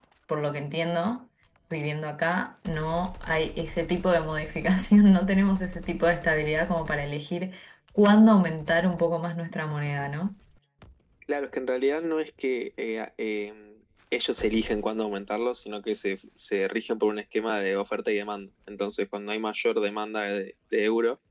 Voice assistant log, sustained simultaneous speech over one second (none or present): none